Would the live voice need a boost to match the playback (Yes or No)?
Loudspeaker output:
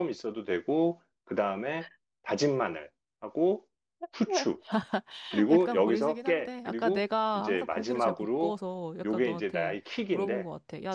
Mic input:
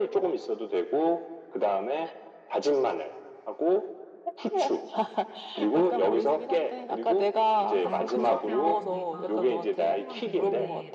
Yes